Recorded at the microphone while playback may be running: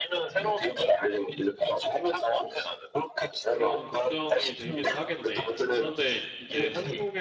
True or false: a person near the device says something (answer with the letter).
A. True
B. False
A